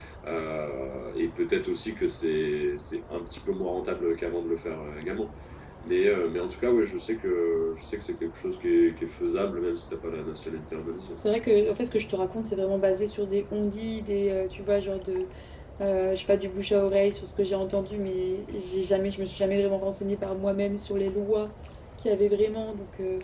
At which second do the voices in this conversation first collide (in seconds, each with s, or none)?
none